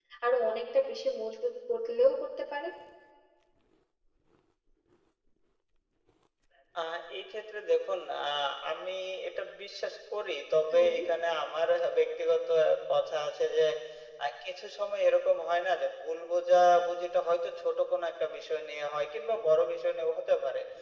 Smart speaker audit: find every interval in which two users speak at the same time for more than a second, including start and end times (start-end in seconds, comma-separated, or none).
none